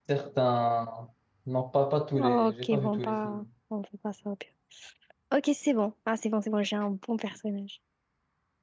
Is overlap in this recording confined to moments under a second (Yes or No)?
No